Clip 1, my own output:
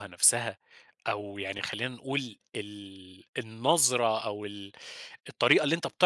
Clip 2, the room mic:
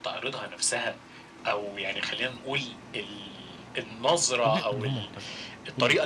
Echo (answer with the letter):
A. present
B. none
A